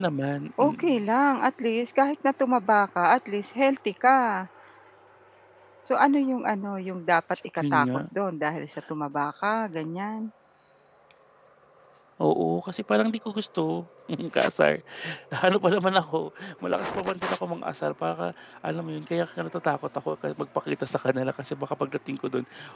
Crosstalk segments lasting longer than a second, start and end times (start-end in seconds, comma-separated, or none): none